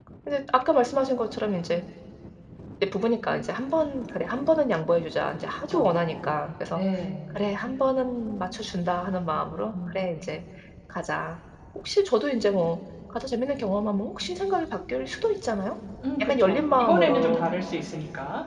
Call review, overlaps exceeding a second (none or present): present